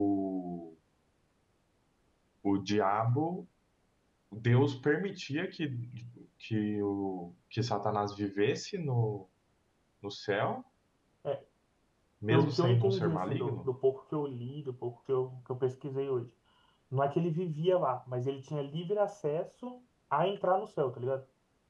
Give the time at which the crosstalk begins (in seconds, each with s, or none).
12.3 s